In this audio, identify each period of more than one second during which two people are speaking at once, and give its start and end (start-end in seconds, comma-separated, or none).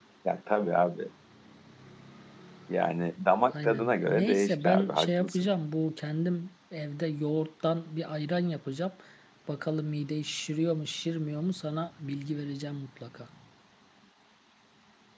3.6-5.5